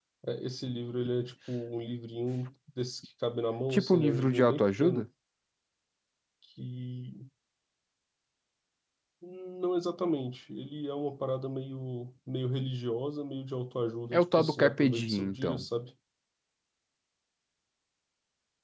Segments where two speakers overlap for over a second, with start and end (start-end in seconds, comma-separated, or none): 3.7-5.1, 14.1-15.6